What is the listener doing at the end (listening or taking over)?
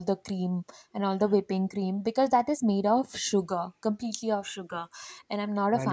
taking over